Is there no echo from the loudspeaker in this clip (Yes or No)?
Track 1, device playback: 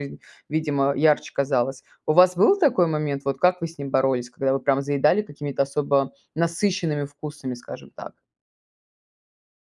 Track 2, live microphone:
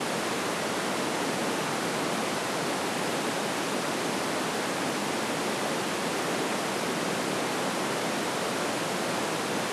Yes